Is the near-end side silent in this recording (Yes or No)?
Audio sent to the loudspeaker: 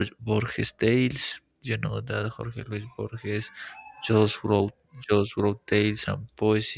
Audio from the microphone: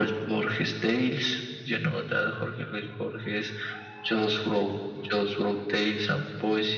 Yes